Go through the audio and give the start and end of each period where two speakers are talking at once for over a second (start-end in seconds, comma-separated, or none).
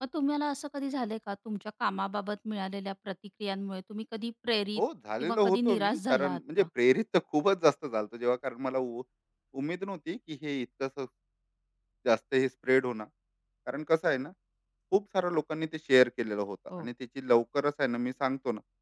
5.2-6.6